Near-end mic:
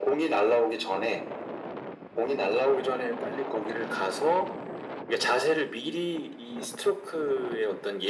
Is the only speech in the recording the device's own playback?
Yes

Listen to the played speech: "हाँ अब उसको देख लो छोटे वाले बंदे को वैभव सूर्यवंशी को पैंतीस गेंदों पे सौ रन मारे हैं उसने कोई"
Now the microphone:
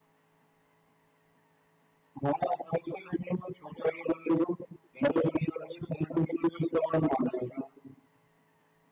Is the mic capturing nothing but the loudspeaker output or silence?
Yes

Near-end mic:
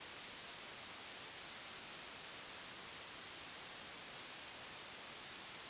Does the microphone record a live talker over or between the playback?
No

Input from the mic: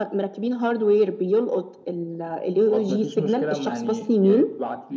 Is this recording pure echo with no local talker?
Yes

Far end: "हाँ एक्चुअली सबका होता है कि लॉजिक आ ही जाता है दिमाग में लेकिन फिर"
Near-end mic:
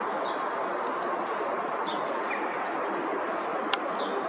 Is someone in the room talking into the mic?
No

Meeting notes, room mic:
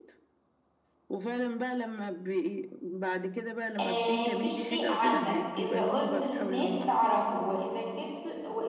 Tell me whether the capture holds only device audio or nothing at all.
No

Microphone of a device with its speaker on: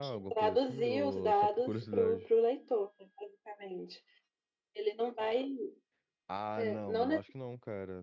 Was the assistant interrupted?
Yes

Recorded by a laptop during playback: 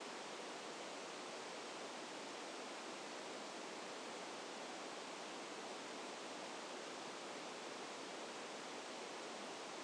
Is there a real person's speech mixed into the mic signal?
No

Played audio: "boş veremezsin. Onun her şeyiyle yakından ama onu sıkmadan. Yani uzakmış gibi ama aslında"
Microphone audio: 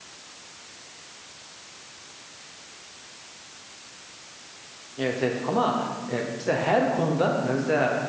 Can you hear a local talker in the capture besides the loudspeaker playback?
Yes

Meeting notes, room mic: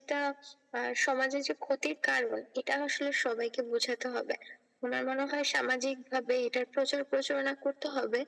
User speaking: No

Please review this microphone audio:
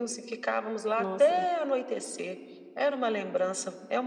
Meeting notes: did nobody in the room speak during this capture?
No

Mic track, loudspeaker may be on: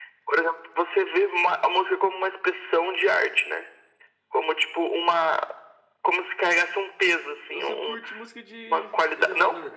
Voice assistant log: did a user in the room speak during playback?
Yes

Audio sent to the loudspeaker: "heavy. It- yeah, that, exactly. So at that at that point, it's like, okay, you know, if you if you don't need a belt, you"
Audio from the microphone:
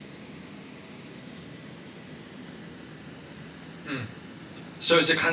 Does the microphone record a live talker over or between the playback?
Yes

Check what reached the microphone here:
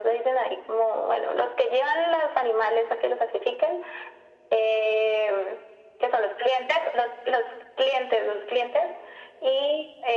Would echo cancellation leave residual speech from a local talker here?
No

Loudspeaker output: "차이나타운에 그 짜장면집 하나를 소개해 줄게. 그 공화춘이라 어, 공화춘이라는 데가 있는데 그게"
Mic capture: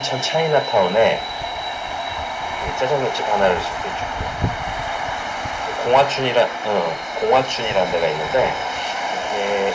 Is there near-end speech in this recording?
No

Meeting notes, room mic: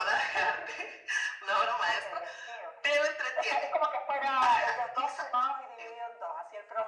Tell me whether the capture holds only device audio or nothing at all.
Yes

